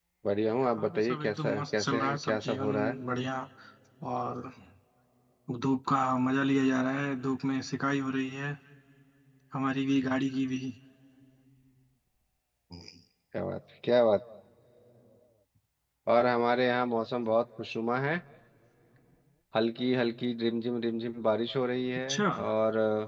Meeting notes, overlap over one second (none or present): present